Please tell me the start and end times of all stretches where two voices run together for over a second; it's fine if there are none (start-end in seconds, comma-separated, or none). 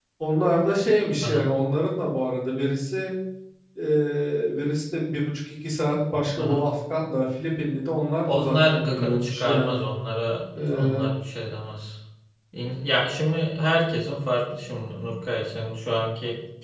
8.2-9.8